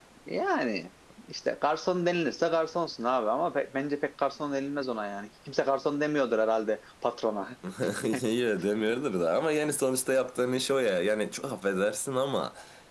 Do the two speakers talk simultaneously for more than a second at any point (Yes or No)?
No